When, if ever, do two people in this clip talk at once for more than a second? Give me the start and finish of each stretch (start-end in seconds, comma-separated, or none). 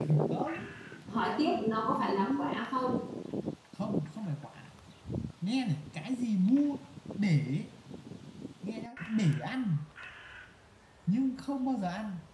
1.3-2.5